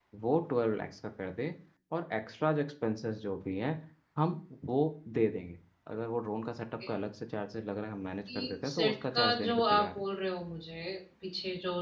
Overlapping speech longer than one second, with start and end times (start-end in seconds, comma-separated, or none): 8.3-10.0